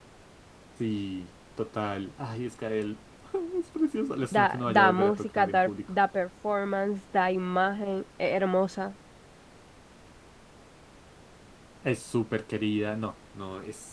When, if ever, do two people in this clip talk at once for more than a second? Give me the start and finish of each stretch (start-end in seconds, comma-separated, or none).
4.3-5.9